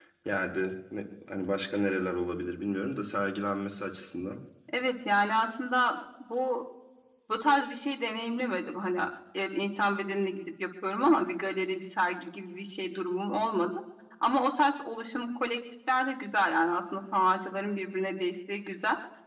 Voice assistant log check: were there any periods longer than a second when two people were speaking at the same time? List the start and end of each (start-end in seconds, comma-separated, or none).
none